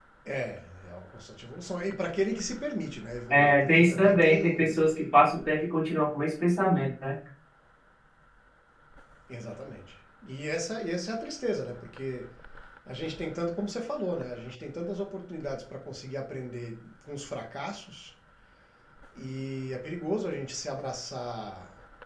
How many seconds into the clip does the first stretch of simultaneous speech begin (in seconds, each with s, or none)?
3.3 s